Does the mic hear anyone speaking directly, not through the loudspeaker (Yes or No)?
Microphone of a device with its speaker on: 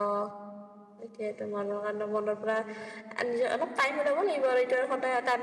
Yes